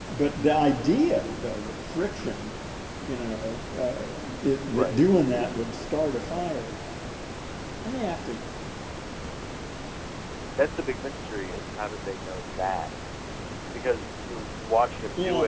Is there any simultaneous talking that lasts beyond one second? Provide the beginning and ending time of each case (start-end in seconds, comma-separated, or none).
none